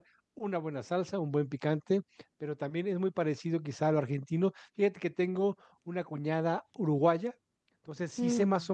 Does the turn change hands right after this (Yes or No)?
No